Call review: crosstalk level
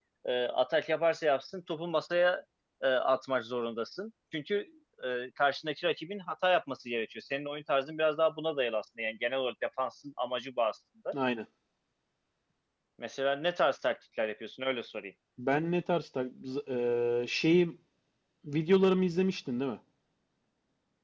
none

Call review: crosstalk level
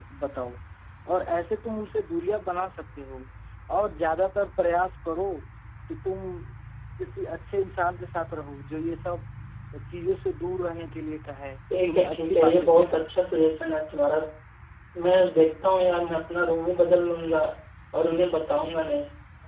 present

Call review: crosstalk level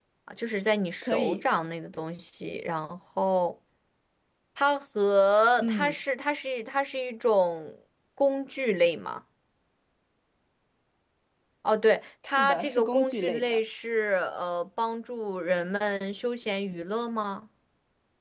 present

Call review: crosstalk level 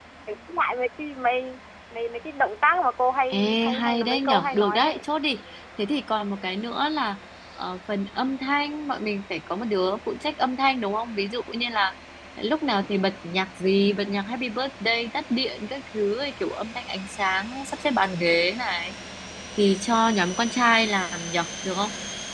present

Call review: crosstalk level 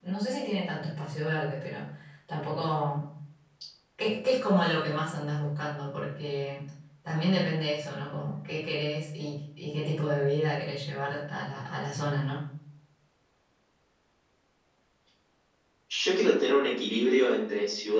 none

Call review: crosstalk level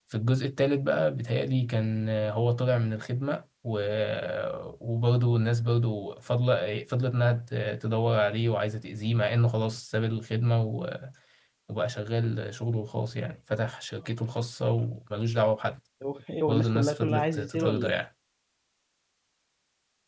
present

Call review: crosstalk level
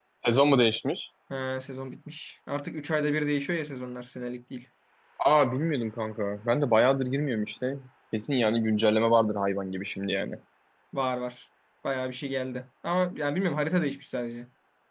none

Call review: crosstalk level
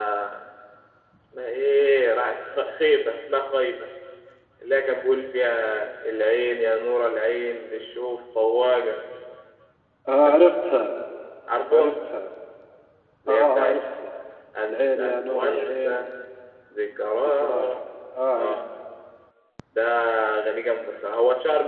present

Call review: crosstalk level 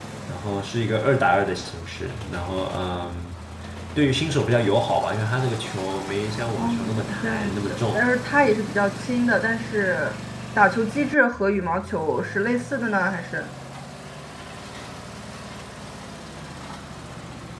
present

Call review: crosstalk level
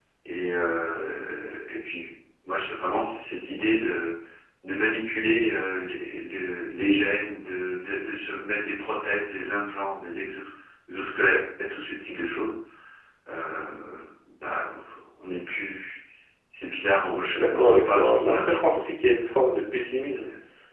present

